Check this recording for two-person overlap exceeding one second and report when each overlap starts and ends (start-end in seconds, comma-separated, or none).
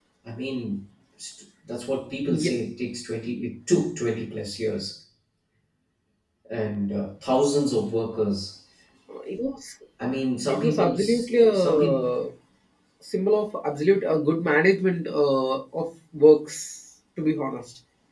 10.5-12.0